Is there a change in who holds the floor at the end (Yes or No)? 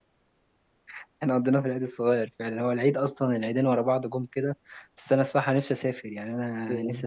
Yes